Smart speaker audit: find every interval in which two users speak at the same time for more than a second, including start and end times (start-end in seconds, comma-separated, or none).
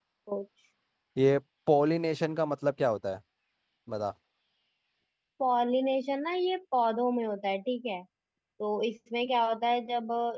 none